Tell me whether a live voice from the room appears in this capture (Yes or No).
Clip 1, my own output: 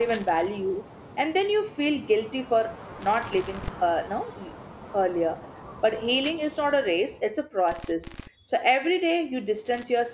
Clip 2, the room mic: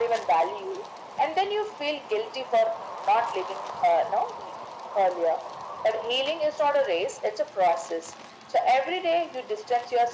No